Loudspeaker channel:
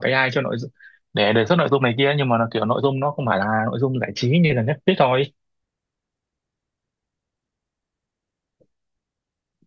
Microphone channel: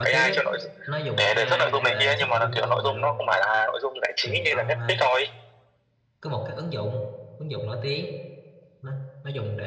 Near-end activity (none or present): present